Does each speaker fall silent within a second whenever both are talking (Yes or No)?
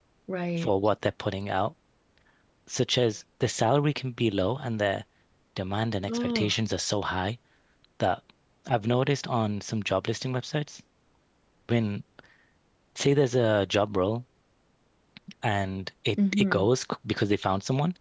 Yes